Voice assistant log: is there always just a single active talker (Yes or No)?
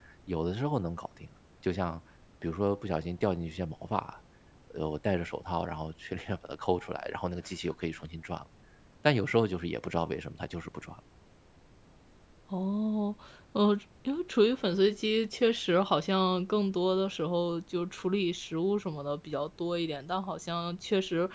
Yes